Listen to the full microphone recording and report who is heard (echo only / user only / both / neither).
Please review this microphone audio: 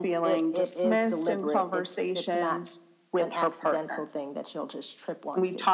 echo only